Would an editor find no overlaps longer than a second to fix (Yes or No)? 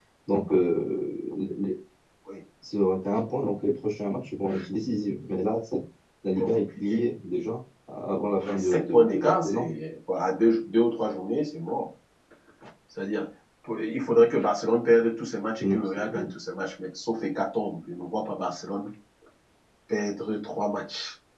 No